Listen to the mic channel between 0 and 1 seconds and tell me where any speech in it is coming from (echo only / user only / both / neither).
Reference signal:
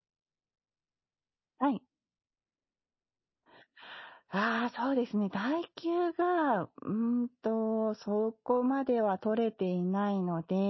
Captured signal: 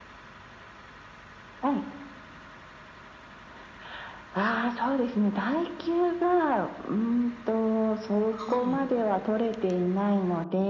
neither